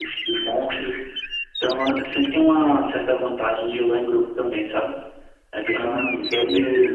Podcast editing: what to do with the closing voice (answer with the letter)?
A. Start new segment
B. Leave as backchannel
A